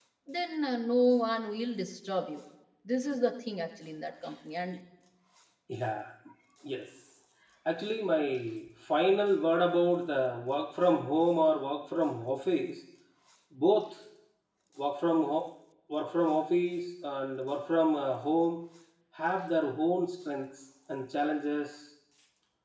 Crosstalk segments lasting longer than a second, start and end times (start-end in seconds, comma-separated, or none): none